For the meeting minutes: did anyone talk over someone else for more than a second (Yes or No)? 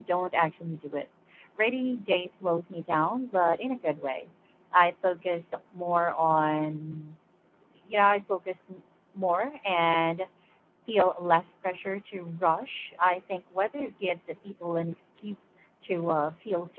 No